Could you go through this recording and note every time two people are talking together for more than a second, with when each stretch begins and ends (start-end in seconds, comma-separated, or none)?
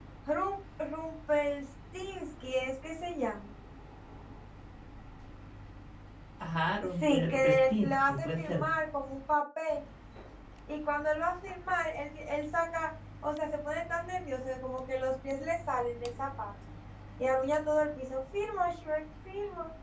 7.1-8.6